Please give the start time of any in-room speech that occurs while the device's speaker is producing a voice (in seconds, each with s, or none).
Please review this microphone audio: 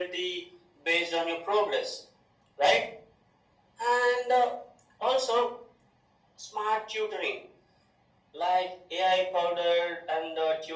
none